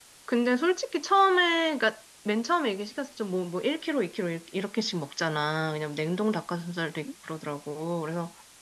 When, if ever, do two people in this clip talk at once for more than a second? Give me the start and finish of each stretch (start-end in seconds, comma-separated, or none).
none